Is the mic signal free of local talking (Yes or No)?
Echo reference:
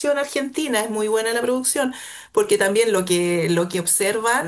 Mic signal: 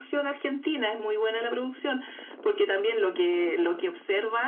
Yes